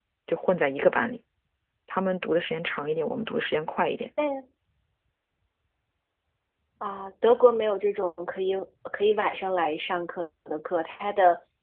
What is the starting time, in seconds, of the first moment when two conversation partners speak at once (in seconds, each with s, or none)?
none